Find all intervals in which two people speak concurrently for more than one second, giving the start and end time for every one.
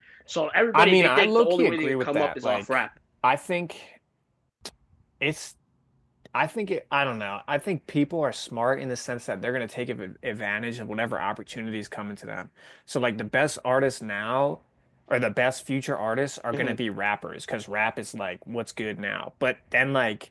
0.7-2.8

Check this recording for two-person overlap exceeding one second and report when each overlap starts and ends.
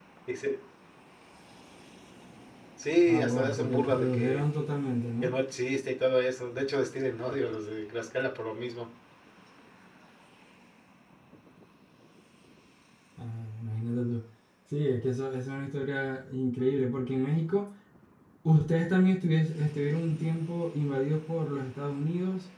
3.1-4.4

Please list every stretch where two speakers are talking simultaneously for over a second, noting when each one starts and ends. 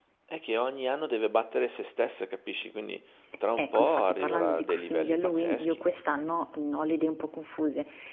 3.6-5.8

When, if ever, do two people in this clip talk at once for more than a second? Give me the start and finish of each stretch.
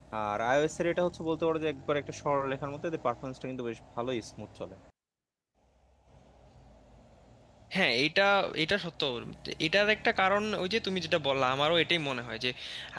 none

